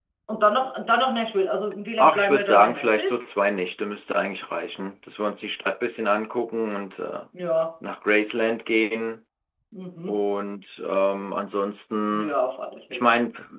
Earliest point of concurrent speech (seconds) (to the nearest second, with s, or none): 2 s